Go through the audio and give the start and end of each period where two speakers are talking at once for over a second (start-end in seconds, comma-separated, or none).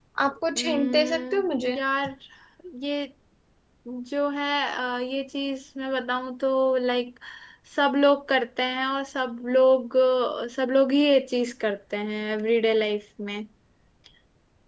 0.6-1.8